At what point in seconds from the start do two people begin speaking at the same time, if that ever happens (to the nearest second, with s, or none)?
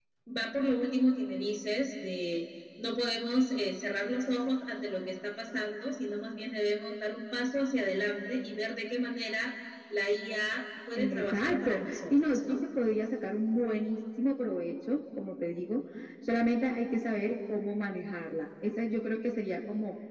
11 s